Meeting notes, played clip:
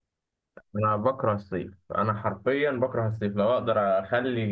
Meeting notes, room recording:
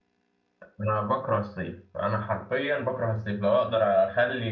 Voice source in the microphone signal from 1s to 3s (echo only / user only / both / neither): echo only